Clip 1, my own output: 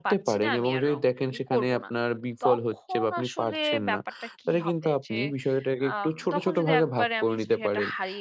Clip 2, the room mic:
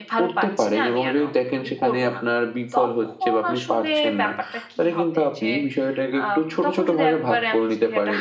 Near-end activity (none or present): none